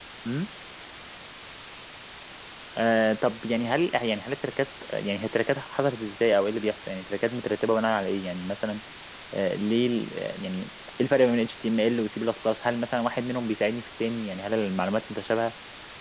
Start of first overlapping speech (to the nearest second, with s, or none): none